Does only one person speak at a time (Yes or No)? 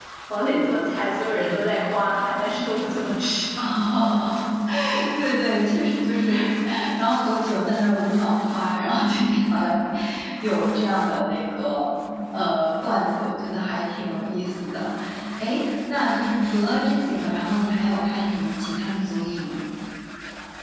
Yes